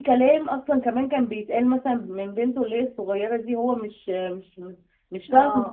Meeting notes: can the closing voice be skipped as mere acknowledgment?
No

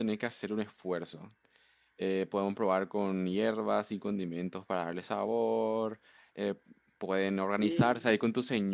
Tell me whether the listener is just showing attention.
Yes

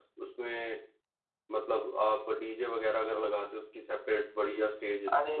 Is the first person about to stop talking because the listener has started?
Yes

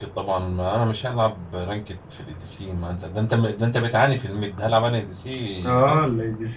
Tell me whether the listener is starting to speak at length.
Yes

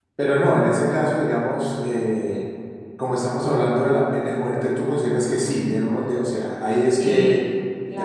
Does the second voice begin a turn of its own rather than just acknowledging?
Yes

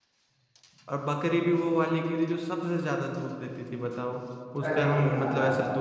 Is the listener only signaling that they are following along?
Yes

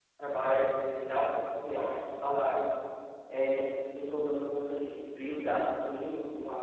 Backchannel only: Yes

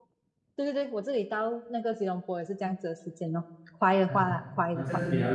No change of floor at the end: No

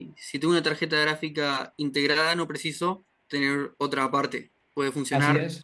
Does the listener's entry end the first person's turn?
Yes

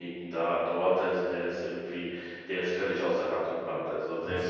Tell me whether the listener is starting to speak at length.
No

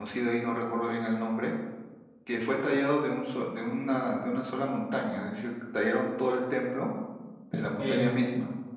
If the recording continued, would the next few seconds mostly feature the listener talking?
Yes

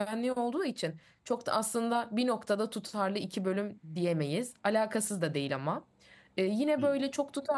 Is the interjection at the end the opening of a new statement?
No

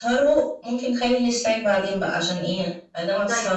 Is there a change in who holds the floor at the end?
Yes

